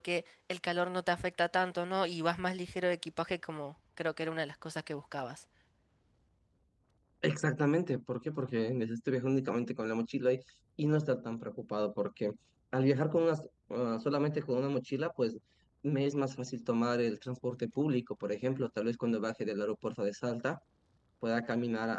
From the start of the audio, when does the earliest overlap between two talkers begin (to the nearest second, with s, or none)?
none